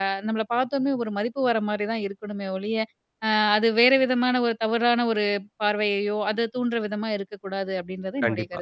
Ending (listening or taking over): taking over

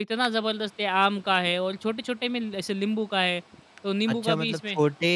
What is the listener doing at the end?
taking over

